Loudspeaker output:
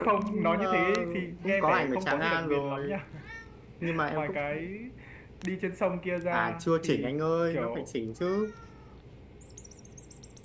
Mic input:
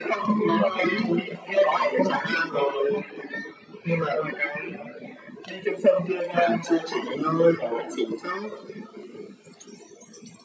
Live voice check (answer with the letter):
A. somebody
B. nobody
B